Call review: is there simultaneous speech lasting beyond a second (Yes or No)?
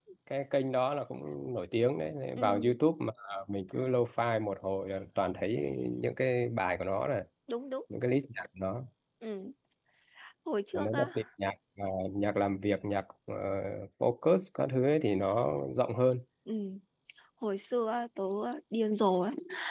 No